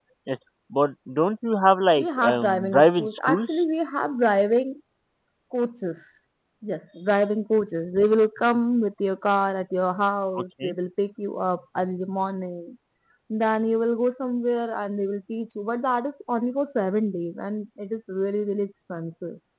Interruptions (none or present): present